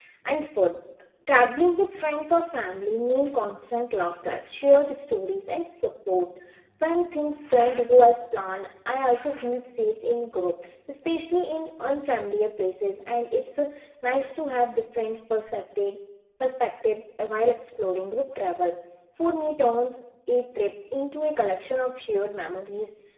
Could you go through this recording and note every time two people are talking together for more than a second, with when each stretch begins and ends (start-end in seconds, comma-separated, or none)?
none